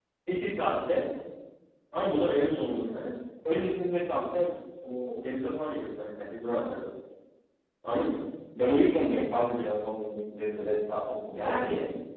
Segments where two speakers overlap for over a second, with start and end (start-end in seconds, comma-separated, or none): none